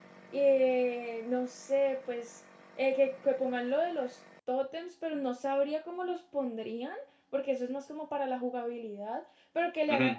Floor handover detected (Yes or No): No